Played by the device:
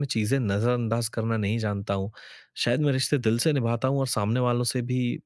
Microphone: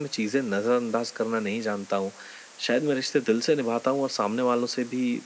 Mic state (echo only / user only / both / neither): echo only